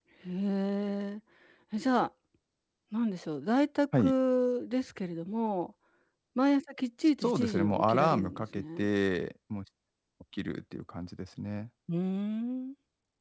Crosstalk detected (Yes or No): Yes